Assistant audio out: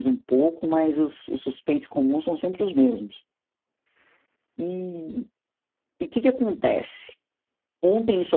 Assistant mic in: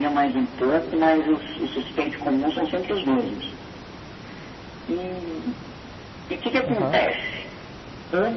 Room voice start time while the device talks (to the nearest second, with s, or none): 7 s